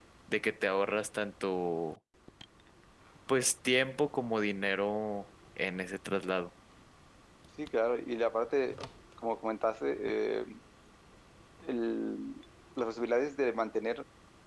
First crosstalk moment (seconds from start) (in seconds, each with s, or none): none